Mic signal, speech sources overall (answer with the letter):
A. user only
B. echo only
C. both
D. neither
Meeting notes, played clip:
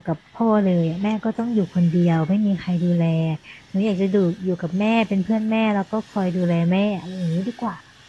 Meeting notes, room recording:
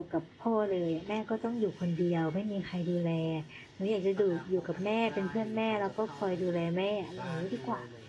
C